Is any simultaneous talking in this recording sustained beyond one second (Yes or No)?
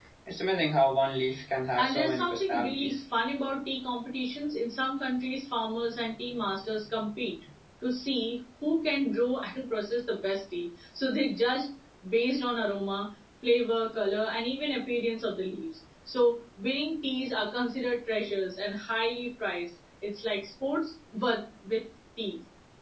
Yes